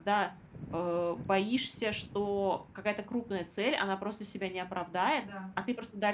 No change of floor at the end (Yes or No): Yes